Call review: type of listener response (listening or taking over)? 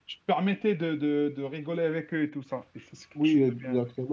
taking over